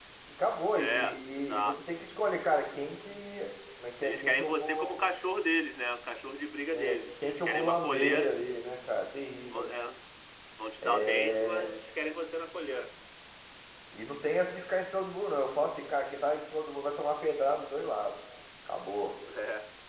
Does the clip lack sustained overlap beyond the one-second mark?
No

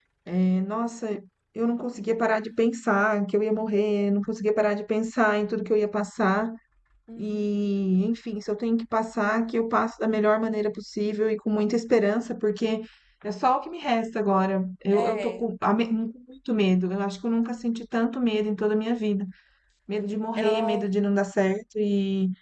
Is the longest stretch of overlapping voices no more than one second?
Yes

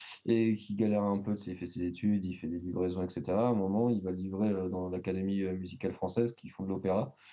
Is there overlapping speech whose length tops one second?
No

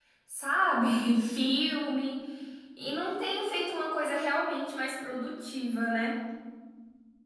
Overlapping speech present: No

